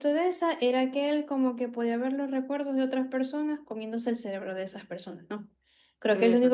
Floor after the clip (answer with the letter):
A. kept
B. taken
A